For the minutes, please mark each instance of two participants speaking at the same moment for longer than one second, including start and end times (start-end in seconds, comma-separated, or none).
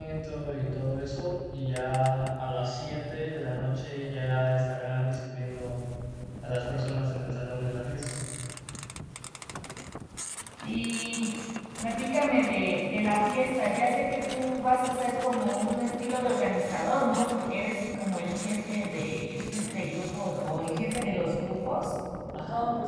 none